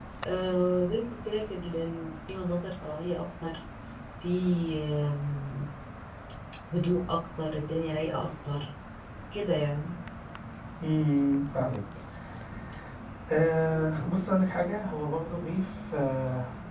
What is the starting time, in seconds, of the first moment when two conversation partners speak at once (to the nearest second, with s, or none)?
none